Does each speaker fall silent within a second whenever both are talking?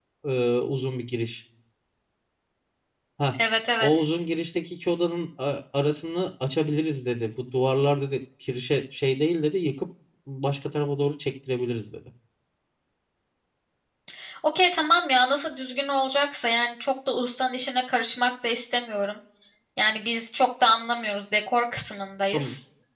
Yes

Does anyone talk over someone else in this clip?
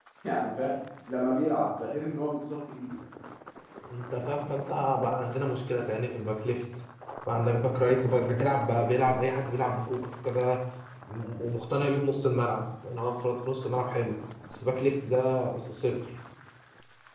No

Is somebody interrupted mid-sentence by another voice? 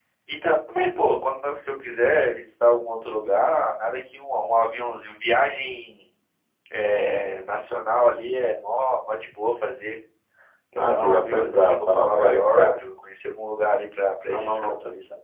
Yes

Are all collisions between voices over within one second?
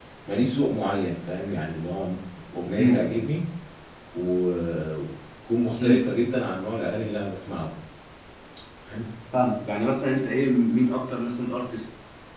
Yes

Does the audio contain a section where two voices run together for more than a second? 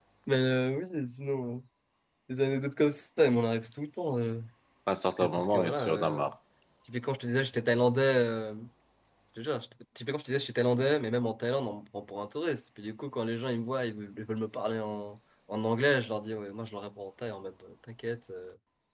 Yes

